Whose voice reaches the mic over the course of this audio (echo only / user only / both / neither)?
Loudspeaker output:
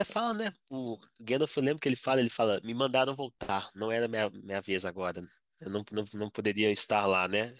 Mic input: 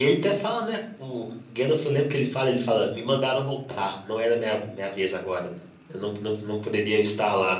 echo only